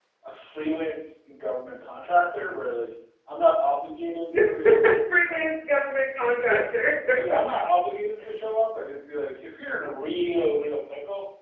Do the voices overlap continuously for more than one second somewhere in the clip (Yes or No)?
No